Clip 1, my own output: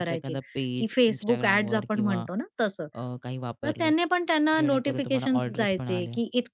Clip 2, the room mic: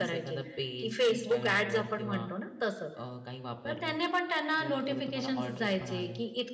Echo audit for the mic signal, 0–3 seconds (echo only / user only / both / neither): echo only